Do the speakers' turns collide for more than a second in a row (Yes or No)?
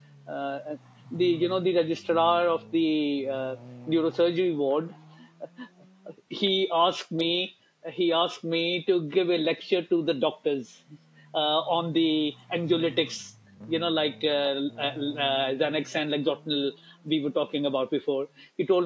No